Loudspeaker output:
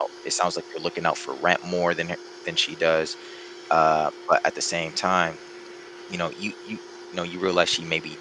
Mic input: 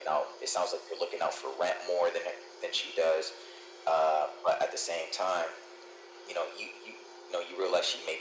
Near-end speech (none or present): none